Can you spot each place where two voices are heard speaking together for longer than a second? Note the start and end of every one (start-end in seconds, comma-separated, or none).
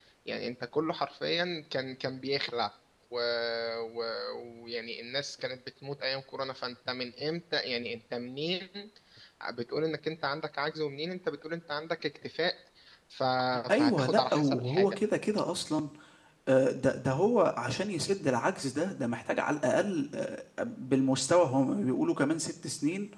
13.7-15.0